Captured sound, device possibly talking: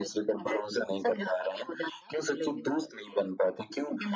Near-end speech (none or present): none